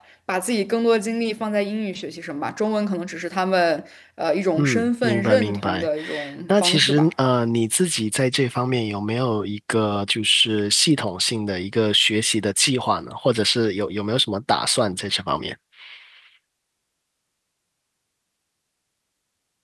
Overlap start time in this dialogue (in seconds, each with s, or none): 4.6 s